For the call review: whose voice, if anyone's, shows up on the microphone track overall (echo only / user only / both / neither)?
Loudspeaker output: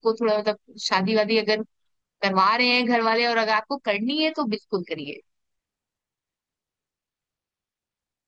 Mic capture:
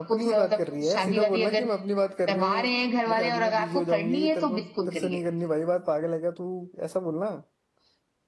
both